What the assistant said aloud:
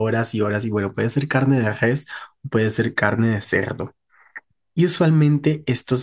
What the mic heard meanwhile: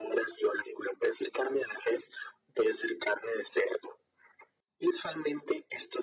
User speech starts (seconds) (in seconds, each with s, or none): none